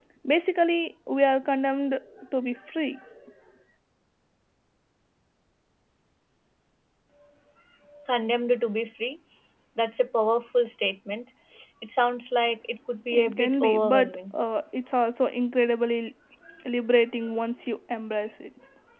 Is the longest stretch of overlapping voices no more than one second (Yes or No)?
No